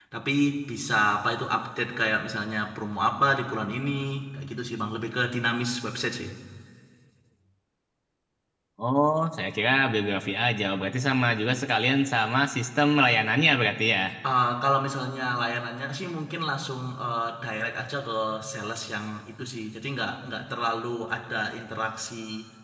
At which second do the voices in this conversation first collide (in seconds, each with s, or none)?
none